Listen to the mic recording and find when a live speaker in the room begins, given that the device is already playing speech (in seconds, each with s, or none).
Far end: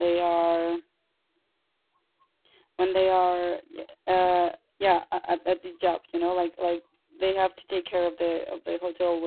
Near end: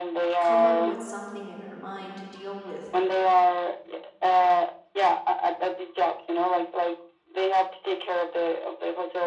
0.4 s